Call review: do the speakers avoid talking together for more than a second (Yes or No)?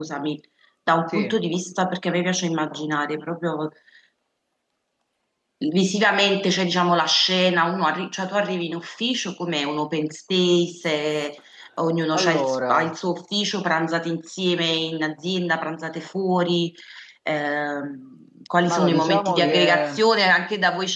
No